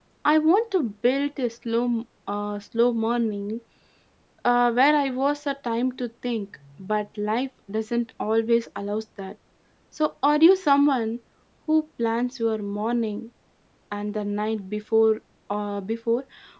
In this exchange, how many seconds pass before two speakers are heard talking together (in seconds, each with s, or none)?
none